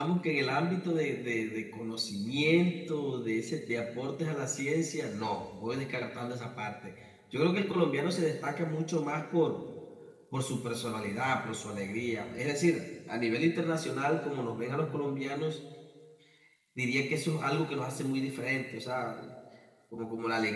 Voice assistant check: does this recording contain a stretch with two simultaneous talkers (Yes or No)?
No